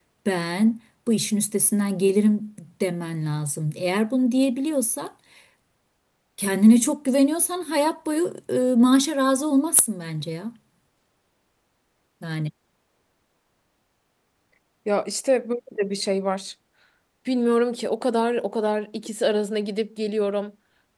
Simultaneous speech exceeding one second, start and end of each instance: none

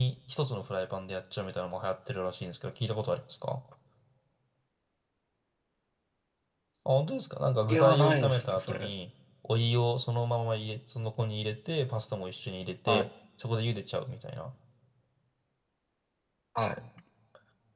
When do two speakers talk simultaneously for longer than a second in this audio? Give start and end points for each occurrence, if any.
7.7-8.9

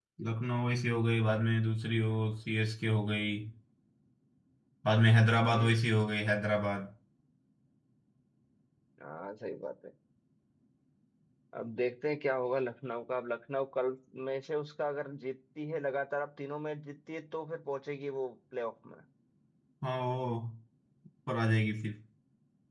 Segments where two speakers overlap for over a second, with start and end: none

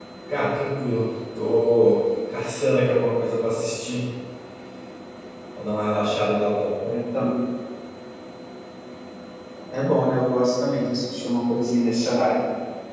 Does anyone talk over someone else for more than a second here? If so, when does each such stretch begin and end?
none

